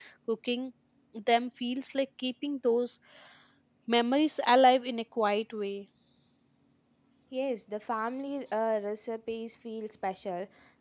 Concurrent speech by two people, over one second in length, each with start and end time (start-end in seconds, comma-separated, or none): none